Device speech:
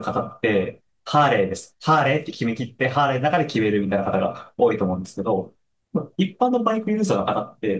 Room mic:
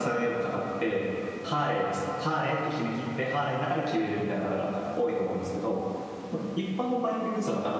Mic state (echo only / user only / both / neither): echo only